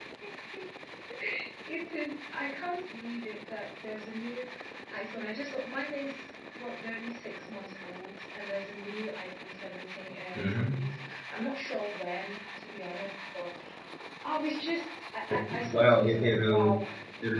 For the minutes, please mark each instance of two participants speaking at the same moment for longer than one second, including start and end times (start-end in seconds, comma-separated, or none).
15.3-16.8